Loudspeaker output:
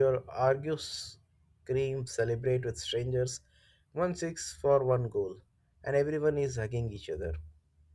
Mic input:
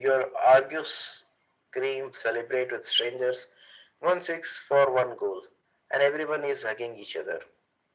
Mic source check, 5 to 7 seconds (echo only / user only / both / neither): echo only